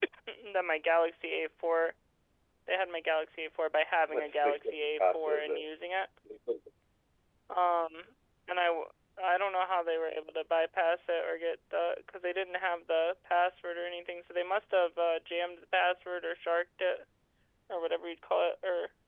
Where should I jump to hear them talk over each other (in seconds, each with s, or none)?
4.1 s